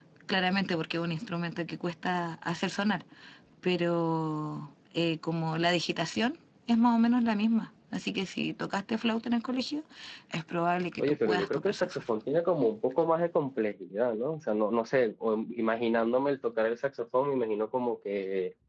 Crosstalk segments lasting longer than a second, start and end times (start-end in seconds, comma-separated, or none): 11.0-12.2